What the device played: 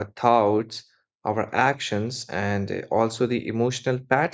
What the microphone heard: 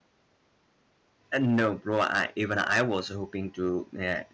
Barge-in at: 1 s

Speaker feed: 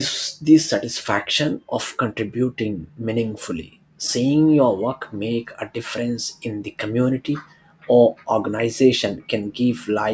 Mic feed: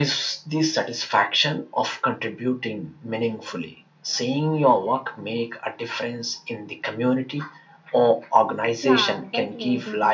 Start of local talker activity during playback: 9 s

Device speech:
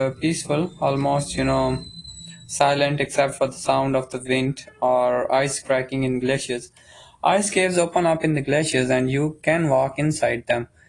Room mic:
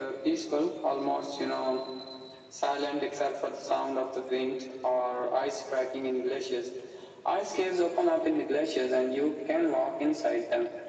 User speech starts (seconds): none

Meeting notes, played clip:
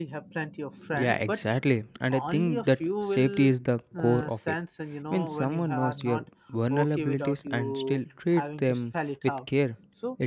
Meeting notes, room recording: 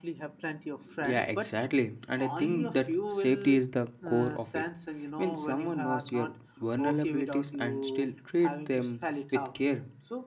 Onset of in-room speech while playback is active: none

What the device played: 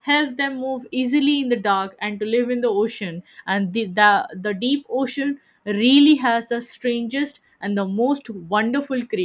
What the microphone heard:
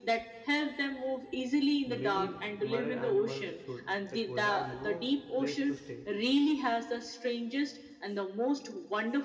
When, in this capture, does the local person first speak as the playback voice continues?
2 s

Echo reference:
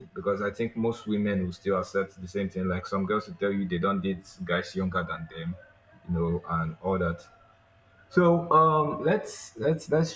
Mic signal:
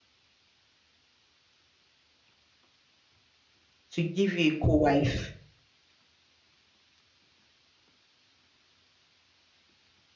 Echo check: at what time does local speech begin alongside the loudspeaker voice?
4 s

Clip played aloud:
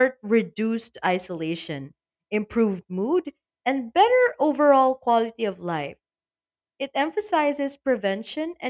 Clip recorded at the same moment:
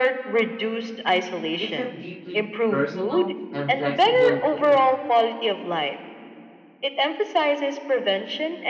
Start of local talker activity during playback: 2 s

